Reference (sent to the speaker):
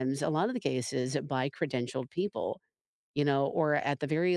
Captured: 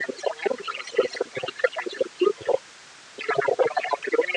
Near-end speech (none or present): none